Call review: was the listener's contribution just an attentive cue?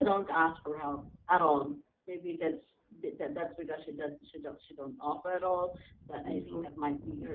Yes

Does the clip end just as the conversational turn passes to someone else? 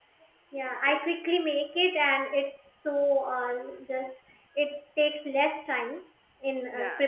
No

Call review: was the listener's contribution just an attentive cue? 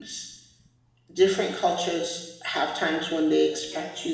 Yes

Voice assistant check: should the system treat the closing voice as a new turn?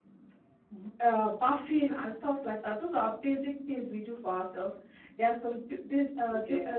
No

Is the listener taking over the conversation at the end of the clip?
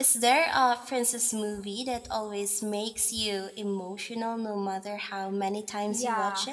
Yes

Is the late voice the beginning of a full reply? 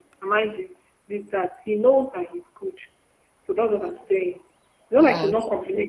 No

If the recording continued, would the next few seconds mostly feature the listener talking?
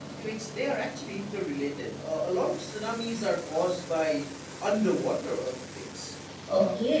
Yes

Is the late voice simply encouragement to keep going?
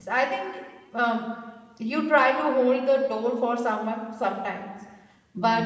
Yes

